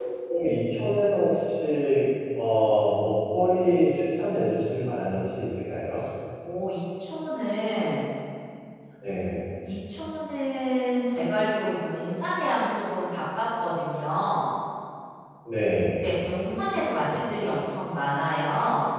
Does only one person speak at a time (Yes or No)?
Yes